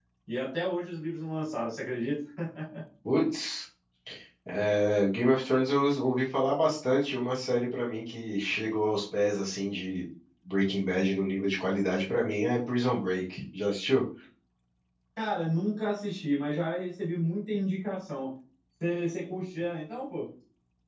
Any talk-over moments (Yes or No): No